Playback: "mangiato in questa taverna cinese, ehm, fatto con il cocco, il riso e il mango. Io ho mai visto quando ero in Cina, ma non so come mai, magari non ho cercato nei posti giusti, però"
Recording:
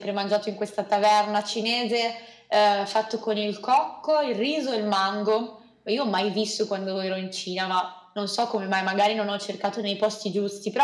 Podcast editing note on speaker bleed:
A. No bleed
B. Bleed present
B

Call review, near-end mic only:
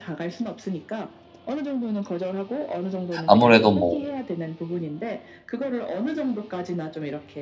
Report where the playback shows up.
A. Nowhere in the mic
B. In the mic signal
B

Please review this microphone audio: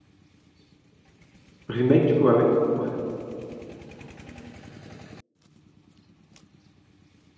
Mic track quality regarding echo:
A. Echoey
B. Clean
B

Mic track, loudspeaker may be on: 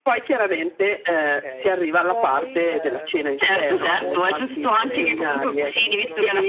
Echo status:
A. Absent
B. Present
B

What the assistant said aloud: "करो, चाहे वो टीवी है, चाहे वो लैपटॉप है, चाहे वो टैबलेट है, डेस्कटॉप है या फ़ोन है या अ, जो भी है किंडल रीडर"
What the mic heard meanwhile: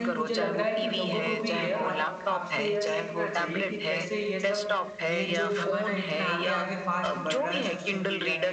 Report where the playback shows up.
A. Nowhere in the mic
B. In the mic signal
B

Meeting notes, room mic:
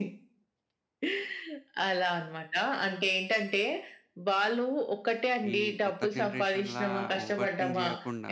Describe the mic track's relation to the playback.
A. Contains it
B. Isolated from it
A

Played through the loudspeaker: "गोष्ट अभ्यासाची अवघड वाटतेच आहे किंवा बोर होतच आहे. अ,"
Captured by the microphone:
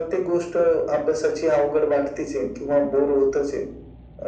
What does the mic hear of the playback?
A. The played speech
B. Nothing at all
A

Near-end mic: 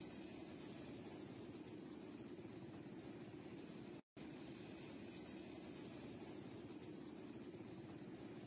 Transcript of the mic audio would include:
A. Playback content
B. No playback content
B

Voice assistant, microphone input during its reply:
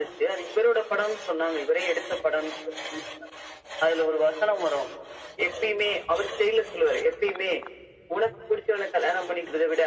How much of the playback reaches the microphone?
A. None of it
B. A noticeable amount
B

